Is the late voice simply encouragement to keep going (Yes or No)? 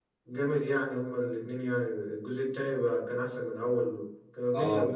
No